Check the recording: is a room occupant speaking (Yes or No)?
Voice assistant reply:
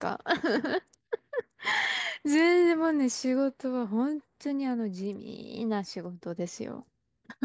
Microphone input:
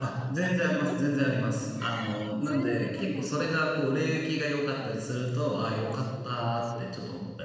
Yes